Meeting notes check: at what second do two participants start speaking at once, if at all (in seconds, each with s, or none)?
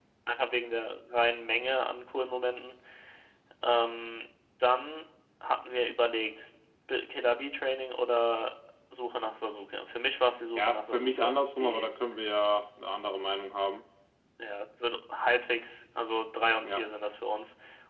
10.6 s